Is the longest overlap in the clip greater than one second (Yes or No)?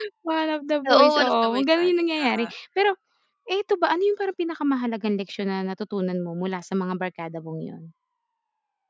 Yes